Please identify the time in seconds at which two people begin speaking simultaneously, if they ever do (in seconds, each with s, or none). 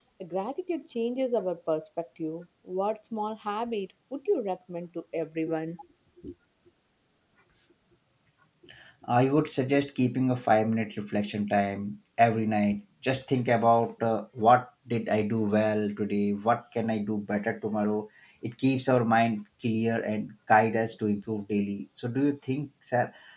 none